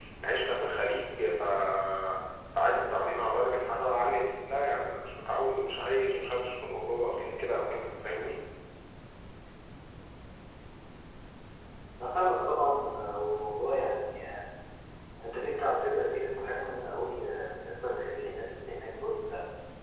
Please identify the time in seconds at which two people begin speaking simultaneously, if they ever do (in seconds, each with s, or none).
none